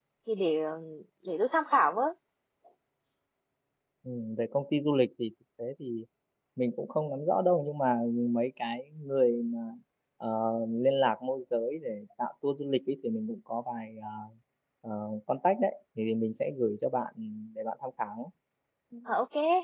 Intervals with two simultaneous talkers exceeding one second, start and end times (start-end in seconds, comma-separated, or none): none